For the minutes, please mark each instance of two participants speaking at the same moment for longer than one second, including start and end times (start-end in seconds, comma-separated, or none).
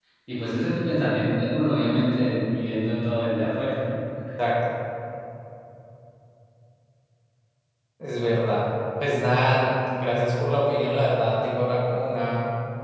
none